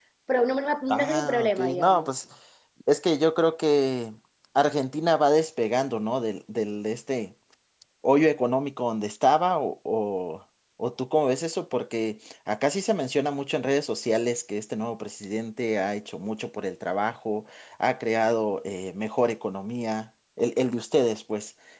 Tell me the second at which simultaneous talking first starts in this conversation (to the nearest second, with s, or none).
1 s